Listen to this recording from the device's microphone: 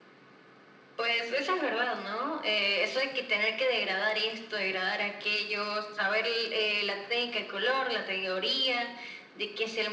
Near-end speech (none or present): none